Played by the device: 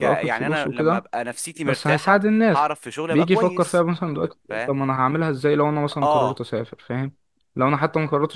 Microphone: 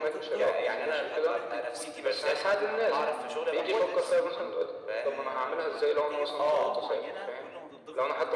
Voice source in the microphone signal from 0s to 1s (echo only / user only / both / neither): both